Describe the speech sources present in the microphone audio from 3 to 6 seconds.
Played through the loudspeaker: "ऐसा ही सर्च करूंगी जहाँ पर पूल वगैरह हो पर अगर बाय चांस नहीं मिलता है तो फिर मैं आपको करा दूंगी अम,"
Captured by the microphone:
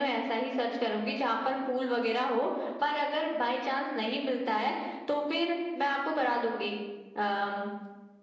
echo only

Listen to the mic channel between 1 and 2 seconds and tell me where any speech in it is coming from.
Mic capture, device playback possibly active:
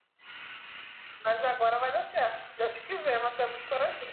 echo only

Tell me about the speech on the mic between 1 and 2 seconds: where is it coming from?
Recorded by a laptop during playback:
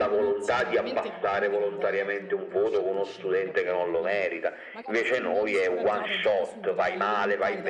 both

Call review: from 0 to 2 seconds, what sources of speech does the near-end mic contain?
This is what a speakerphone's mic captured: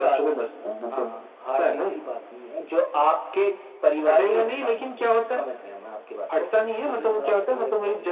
echo only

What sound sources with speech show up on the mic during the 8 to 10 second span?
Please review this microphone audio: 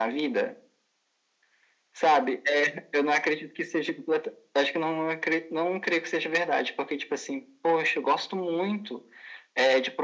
echo only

